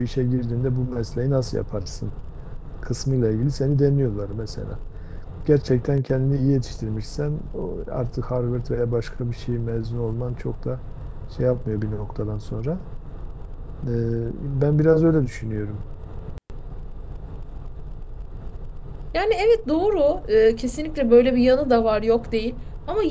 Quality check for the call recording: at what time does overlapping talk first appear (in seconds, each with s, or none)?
none